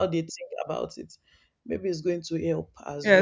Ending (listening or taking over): taking over